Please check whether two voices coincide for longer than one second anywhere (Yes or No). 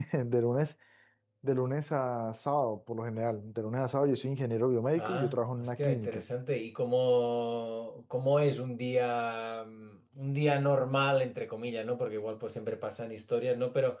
Yes